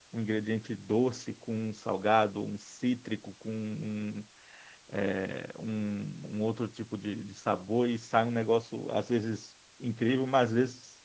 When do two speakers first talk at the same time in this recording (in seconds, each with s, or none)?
none